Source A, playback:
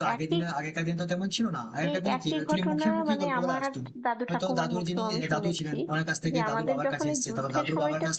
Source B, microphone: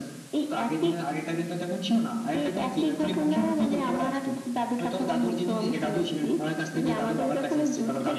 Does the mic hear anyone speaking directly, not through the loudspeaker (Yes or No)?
No